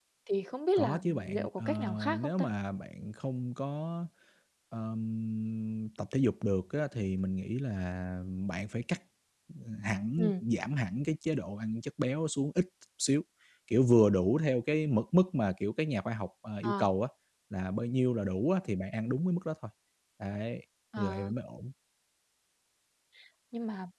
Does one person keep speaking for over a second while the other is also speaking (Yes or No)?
Yes